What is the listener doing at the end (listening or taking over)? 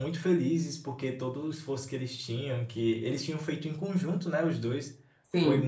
listening